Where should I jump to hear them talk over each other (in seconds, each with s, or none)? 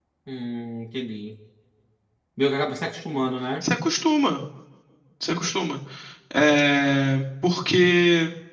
none